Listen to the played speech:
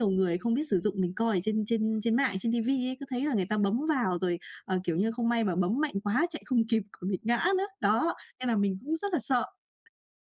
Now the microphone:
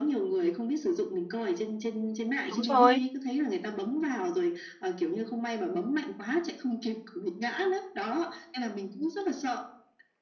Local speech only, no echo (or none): Đúng rồi.